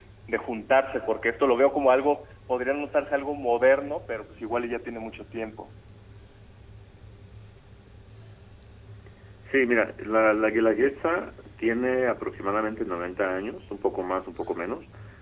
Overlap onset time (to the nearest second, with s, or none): none